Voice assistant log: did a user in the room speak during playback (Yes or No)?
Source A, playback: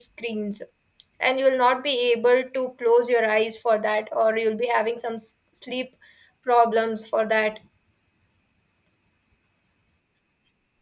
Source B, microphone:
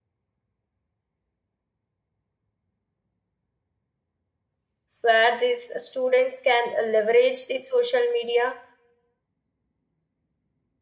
Yes